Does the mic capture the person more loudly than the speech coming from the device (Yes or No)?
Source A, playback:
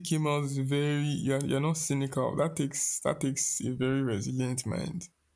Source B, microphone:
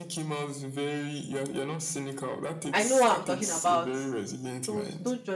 Yes